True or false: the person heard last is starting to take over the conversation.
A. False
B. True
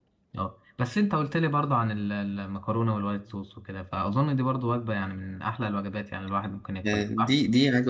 B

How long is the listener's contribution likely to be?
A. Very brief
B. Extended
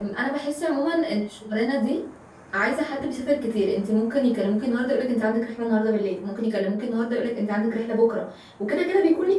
A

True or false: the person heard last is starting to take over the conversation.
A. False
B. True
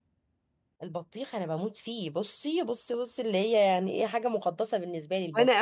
B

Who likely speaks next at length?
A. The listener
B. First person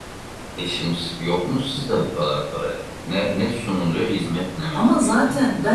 A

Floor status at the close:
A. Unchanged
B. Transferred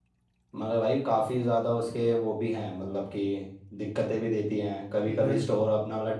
A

